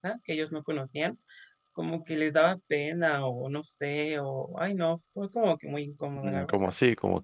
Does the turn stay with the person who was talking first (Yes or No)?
No